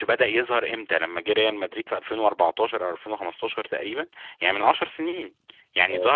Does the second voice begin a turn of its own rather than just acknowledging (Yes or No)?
No